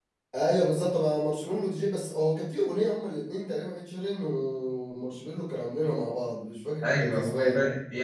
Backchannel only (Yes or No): No